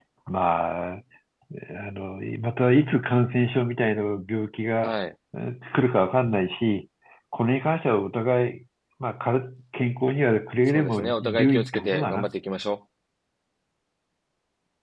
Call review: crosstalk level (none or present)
present